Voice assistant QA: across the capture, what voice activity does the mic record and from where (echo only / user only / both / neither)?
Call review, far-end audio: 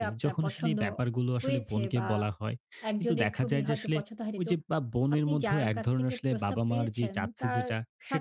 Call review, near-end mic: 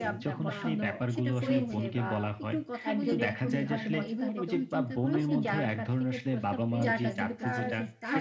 both